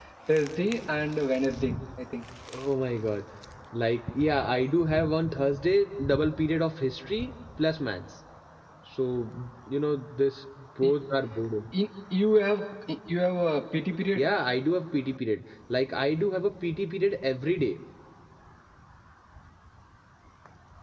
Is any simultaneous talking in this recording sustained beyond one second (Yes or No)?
No